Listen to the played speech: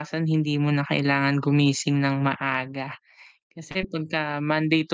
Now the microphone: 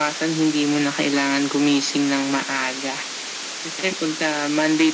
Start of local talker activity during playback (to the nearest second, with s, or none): none